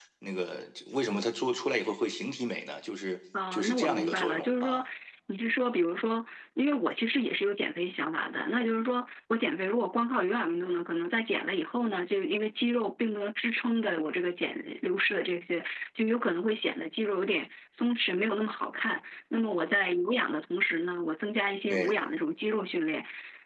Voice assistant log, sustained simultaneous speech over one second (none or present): present